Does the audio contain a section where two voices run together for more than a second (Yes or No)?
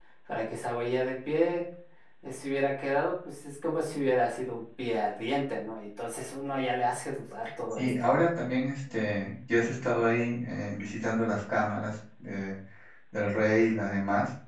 No